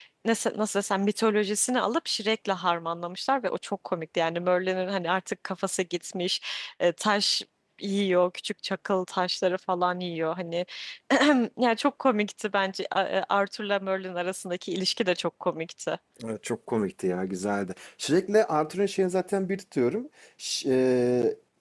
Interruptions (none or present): none